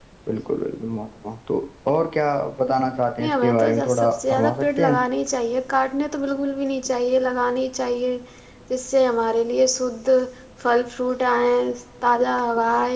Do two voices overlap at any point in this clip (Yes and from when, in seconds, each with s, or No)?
Yes, from 3.2 s